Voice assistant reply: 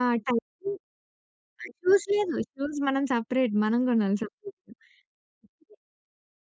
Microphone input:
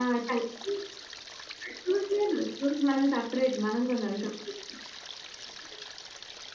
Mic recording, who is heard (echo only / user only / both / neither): echo only